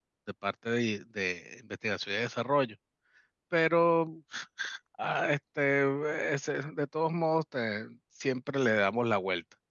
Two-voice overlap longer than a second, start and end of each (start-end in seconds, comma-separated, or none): none